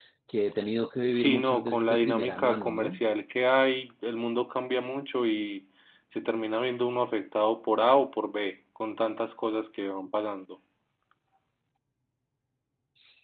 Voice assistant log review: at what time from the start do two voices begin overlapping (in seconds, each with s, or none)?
1.1 s